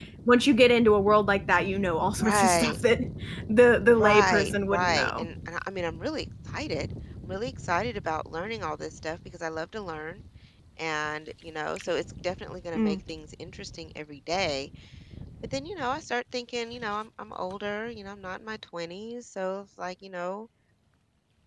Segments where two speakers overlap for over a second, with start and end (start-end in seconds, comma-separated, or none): 3.9-5.3